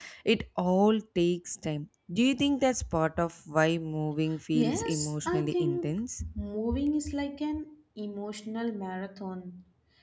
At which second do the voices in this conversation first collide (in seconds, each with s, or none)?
4.5 s